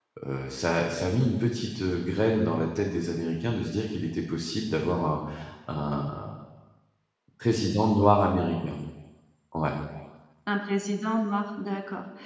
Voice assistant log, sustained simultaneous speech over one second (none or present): none